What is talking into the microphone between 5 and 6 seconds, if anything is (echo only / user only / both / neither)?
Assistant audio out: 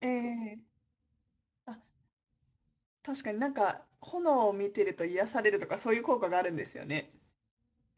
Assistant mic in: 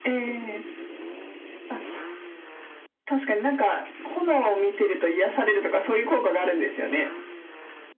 echo only